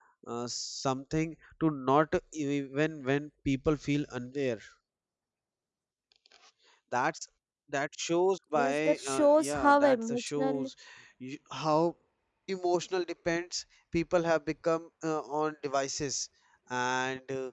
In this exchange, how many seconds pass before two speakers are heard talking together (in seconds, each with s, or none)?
8.6 s